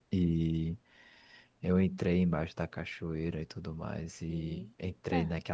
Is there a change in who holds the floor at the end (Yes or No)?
No